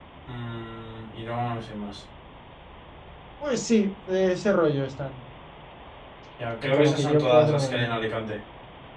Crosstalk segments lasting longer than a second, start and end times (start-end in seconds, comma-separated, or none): 6.6-7.9